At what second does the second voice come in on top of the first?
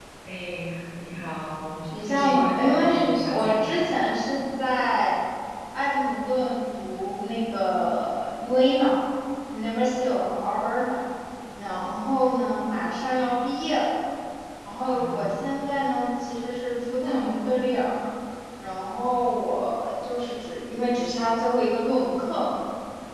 2.0 s

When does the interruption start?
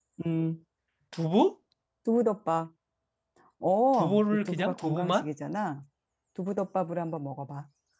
3.9 s

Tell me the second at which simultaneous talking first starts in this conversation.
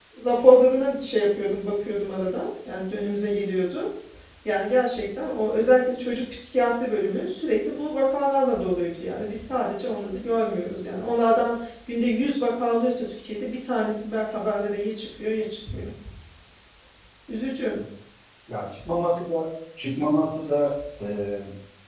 none

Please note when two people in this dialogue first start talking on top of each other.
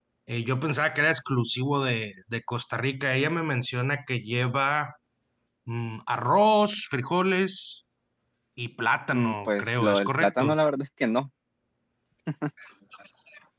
9.1 s

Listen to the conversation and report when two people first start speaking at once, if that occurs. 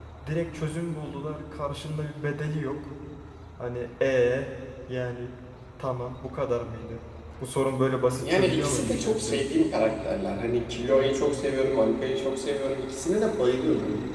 8.2 s

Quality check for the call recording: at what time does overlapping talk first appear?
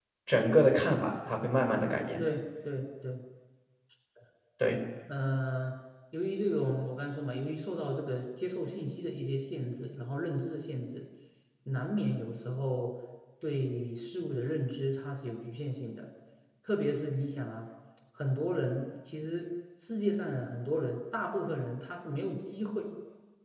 none

